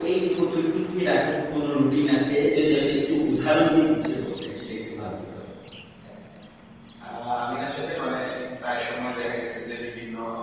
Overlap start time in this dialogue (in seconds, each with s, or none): none